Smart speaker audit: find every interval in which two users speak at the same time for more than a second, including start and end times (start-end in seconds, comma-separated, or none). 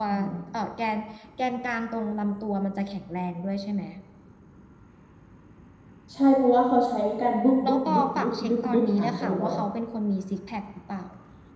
7.7-9.5